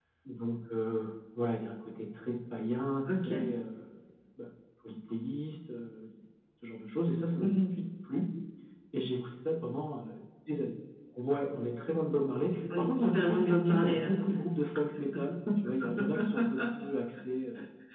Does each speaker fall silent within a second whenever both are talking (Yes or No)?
No